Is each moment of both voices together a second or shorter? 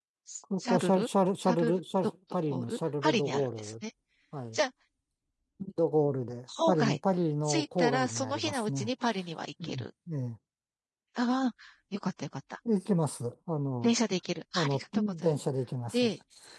No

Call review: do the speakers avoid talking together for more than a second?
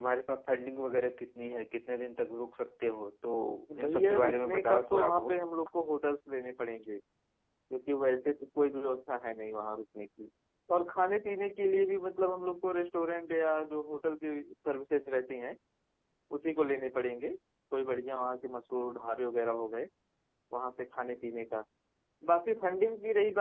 No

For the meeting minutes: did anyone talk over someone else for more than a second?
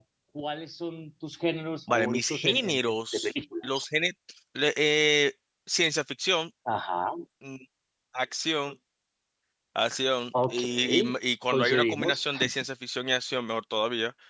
Yes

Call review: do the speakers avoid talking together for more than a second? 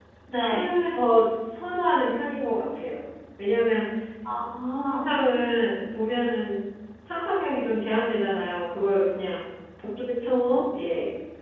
Yes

